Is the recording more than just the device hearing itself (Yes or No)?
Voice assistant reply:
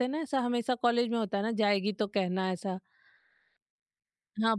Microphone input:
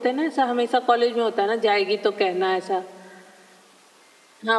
No